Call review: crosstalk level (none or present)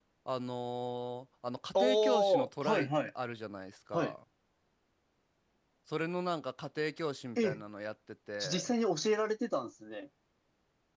present